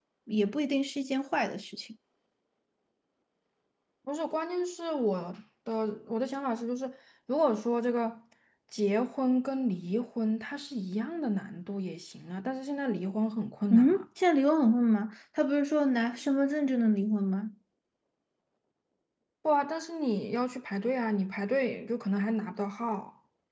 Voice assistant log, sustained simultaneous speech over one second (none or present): none